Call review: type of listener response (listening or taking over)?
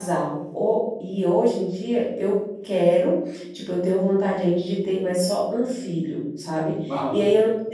listening